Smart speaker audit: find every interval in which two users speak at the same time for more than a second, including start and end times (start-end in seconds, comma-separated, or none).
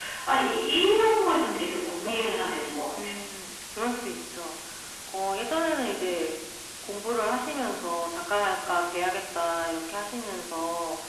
none